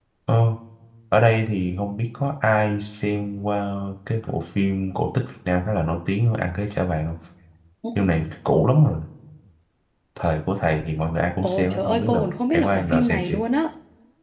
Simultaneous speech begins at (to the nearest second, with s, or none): 11 s